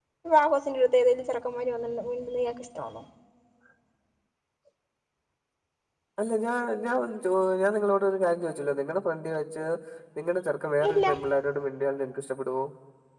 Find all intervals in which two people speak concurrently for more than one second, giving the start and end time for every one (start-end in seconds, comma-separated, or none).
none